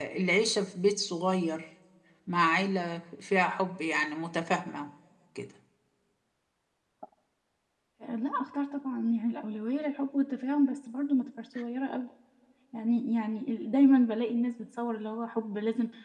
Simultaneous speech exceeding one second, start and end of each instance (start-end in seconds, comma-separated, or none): none